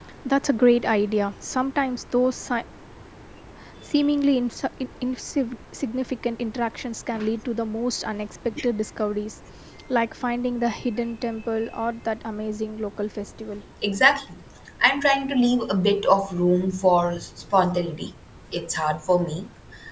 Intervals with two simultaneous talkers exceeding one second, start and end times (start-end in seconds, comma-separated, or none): none